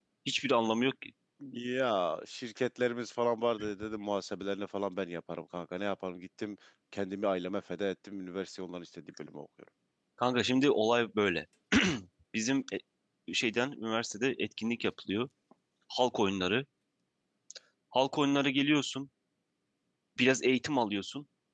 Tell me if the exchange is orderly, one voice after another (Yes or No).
Yes